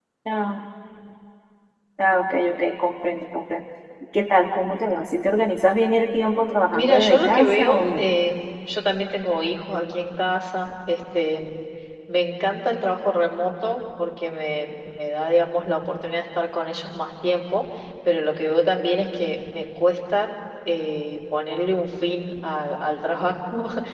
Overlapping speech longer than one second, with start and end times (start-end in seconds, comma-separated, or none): 6.7-8.1